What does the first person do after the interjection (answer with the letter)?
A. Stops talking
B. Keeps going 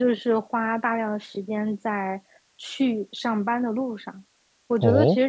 B